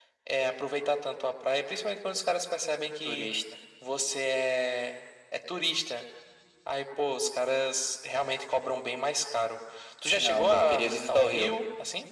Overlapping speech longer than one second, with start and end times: 10.2-11.5

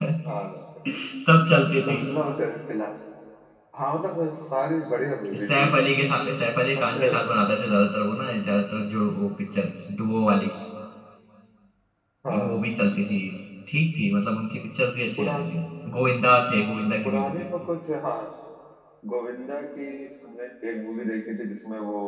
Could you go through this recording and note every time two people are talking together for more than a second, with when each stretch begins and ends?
none

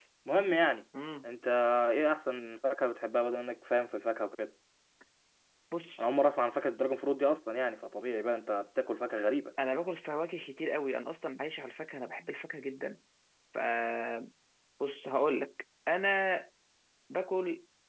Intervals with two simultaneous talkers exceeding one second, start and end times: none

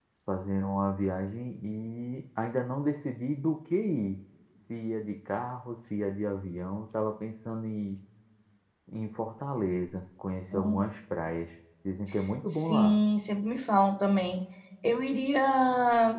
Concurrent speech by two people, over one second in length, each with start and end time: none

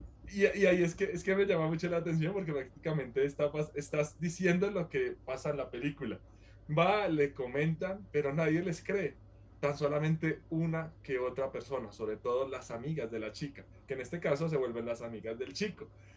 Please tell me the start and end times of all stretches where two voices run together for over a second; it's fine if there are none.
none

